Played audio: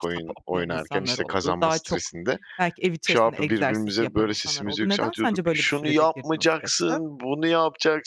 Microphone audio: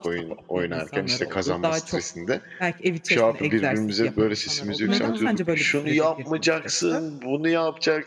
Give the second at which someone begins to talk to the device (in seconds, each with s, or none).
4.9 s